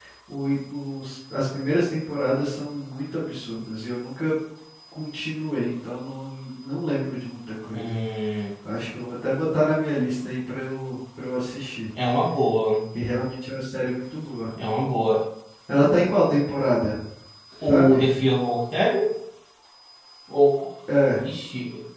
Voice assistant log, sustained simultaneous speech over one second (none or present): none